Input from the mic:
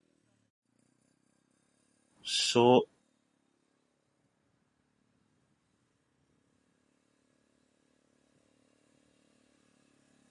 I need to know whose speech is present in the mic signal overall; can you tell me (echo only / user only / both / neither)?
user only